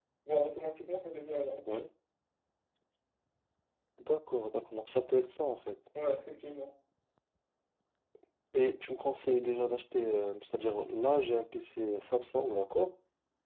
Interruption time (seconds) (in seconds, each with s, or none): none